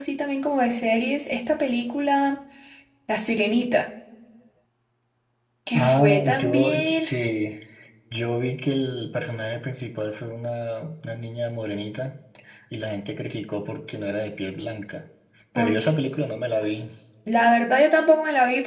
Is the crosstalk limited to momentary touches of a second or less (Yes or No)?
No